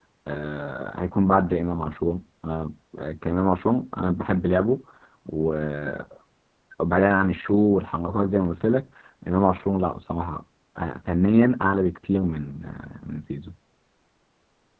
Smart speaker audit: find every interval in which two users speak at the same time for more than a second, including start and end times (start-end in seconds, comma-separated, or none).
none